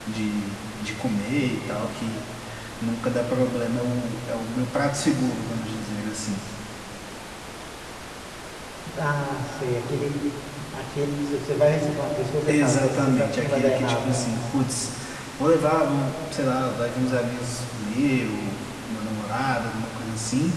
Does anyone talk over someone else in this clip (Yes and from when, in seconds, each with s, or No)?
Yes, from 12.5 s